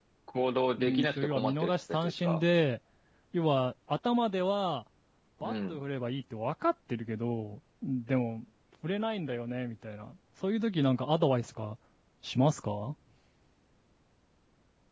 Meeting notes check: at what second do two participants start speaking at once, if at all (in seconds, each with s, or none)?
0.8 s